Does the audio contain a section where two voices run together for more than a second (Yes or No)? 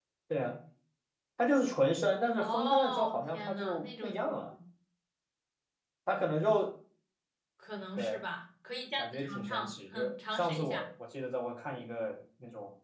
Yes